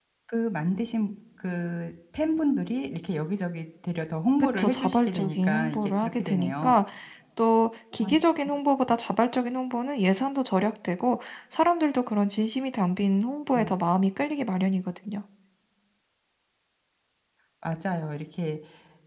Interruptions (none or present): present